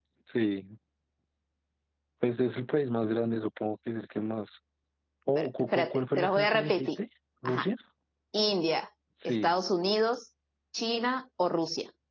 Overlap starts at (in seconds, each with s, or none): 5.3 s